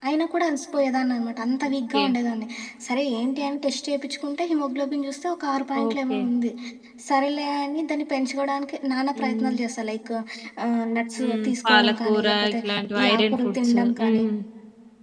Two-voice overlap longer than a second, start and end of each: 11.2-12.6, 13.0-14.2

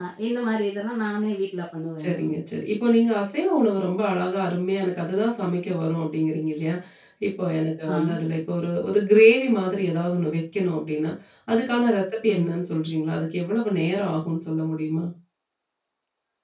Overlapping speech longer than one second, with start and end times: none

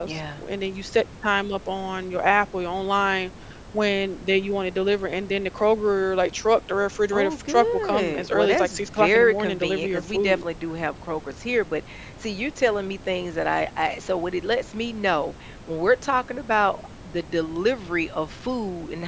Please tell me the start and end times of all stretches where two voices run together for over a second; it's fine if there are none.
7.1-10.4

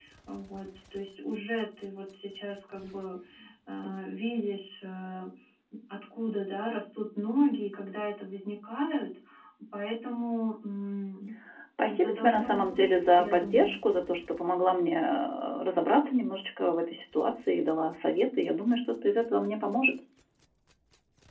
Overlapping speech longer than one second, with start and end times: 11.9-13.8

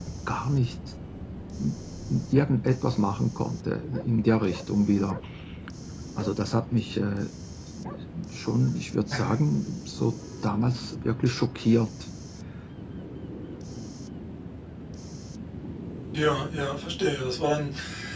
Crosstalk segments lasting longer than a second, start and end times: none

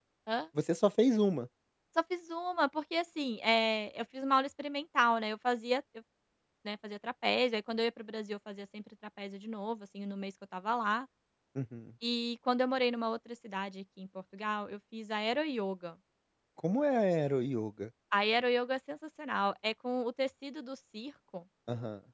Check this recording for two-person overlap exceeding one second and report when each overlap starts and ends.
none

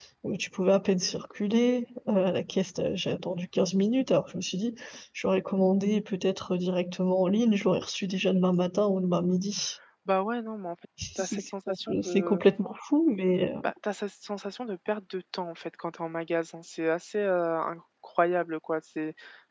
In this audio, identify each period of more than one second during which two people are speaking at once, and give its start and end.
11.2-12.4

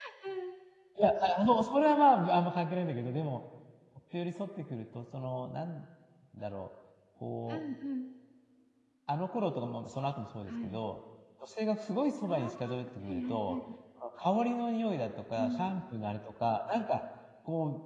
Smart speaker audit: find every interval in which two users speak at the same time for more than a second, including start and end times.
12.3-13.6

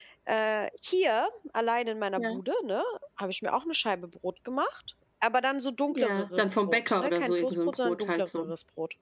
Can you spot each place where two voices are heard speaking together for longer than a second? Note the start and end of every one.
5.9-8.4

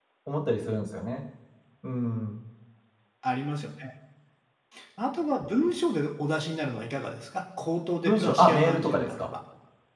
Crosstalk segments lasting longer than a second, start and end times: 8.0-9.3

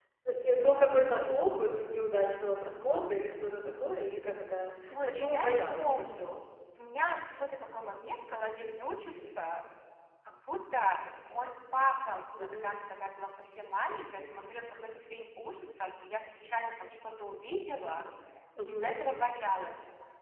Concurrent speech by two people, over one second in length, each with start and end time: 5.0-6.4

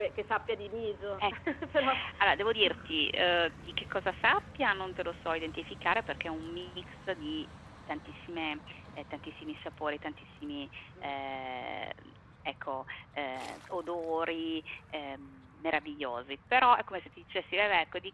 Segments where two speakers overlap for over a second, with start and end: none

